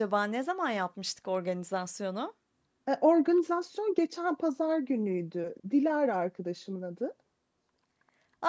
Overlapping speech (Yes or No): No